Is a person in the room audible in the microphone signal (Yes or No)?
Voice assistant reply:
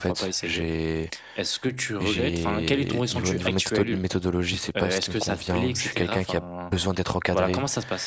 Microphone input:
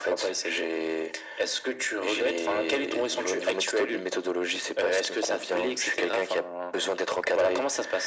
No